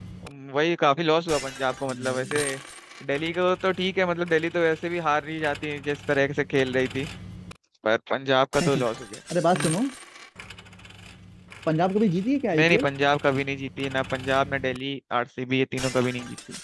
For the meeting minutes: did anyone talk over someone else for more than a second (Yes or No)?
No